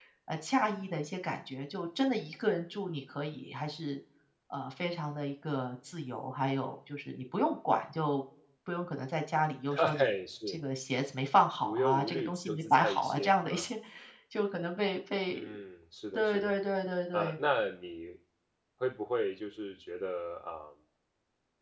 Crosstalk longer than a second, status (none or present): present